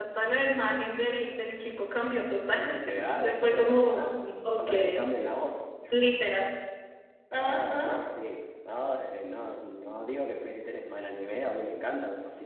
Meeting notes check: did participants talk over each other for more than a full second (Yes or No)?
Yes